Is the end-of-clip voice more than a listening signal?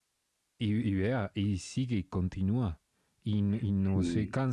No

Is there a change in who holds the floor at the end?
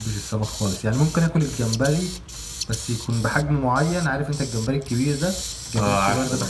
No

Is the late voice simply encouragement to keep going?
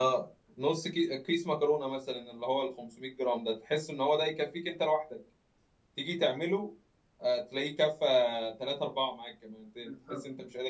Yes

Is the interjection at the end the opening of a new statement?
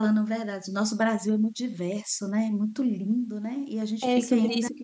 Yes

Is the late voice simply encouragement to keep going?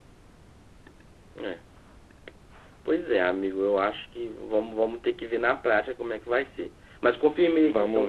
Yes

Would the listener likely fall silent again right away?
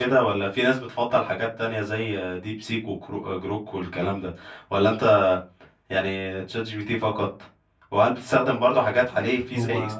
Yes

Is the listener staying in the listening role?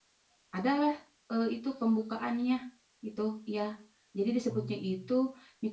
Yes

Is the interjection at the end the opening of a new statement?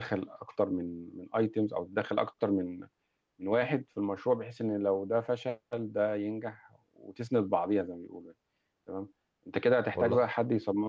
No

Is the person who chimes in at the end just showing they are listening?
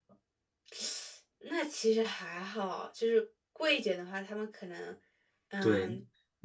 No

